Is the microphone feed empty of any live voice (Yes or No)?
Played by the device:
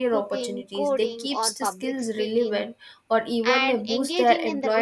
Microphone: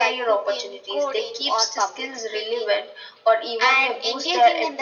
Yes